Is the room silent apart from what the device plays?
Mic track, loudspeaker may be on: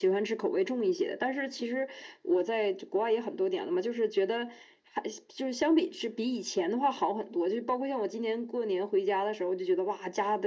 Yes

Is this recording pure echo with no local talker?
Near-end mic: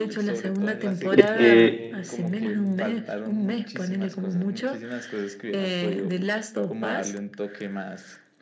No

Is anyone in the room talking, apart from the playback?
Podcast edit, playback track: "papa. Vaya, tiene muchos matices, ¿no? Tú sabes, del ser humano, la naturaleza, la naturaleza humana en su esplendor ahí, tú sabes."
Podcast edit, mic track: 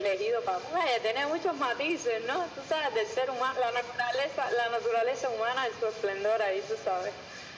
No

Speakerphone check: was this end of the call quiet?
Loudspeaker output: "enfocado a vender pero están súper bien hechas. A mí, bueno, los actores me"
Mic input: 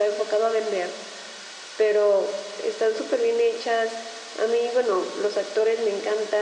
Yes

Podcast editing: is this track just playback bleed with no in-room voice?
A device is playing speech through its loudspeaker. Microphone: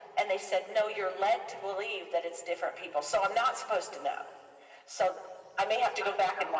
Yes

